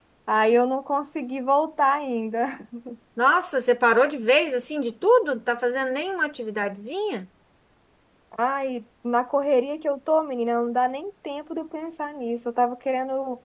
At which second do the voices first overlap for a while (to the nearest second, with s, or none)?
none